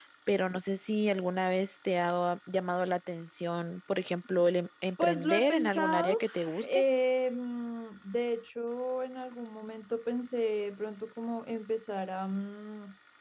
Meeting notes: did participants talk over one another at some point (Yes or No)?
Yes